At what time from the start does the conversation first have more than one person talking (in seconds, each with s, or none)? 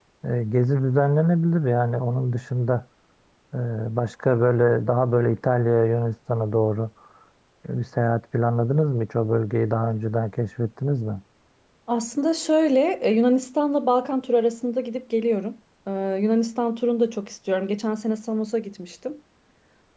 none